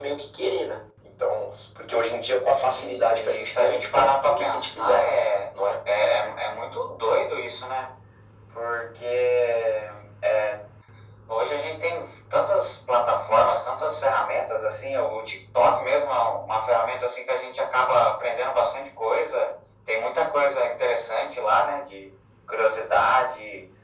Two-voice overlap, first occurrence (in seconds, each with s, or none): 2.6 s